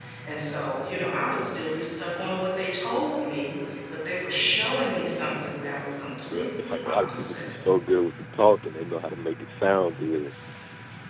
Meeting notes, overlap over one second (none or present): present